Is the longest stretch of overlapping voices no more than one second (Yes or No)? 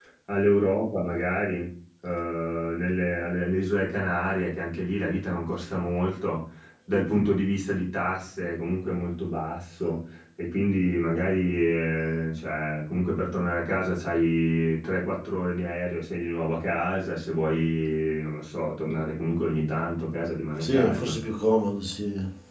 Yes